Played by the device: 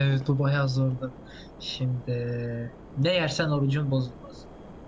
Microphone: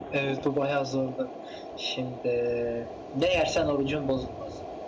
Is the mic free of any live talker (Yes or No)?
Yes